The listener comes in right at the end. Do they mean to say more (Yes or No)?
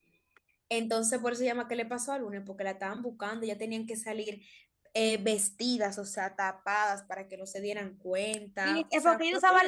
Yes